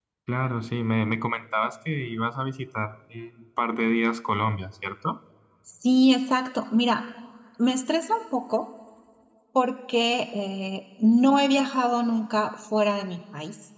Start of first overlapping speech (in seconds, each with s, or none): none